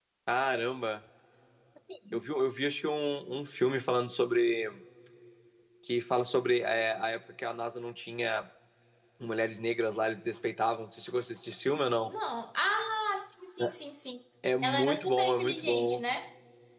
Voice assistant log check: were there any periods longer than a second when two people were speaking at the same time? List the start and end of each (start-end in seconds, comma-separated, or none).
14.6-16.0